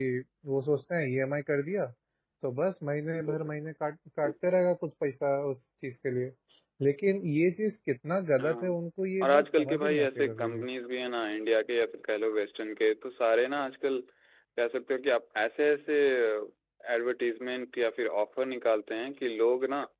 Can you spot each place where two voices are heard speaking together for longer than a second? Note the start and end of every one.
9.2-10.6

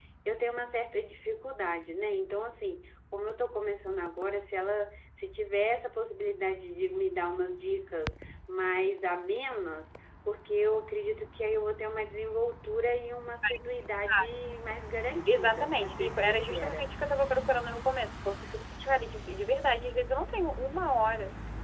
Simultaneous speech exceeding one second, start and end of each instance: 15.3-16.9

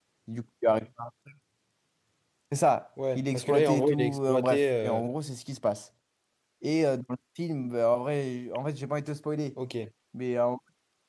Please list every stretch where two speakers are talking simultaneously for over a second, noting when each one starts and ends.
3.1-5.0

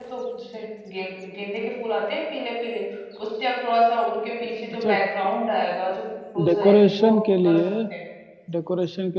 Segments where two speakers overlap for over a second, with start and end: 6.5-7.7

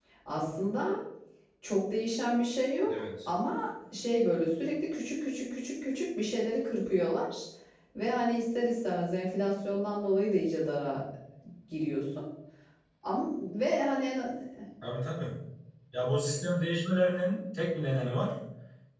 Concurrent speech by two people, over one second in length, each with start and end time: none

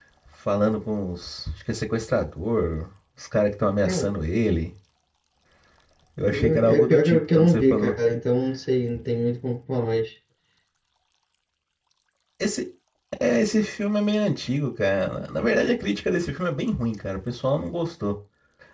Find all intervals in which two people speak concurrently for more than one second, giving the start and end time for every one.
6.3-7.9

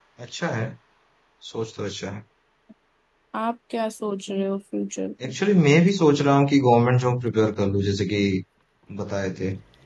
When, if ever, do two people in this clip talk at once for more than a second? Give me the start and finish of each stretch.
none

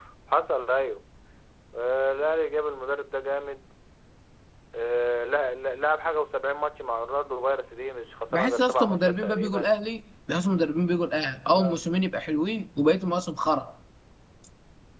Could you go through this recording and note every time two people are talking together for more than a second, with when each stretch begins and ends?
8.3-9.7

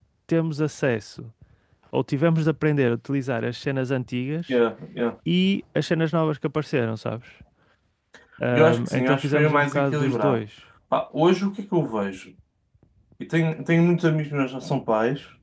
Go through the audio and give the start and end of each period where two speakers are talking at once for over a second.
8.5-10.4

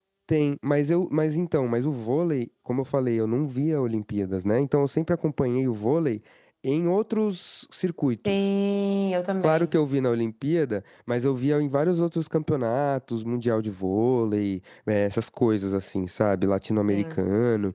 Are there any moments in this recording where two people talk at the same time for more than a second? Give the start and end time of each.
none

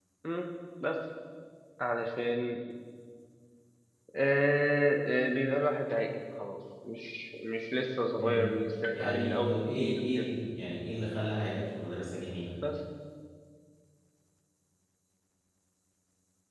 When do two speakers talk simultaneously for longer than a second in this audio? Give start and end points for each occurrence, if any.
8.2-10.3

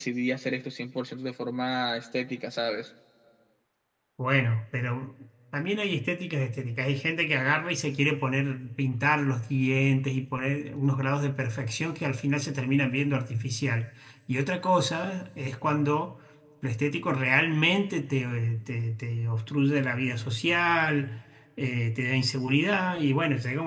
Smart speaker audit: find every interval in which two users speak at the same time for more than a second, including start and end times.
none

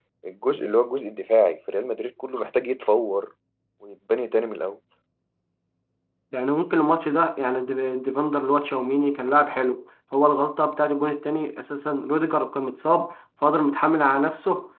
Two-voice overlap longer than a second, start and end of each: none

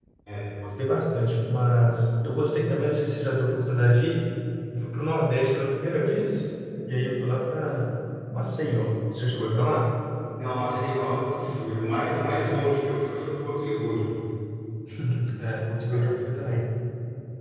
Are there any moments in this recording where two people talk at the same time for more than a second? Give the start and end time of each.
none

